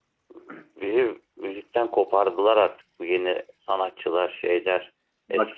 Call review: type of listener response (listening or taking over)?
taking over